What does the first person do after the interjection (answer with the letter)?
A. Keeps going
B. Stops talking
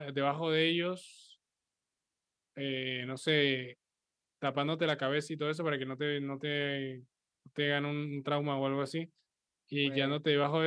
A